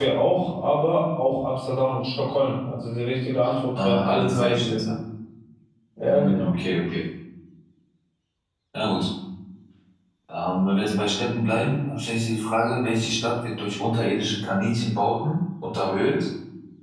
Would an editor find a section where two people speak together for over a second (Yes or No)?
Yes